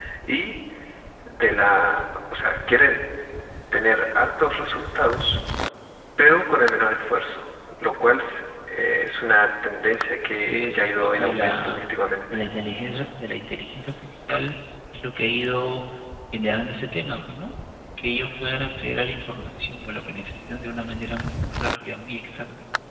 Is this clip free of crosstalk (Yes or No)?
No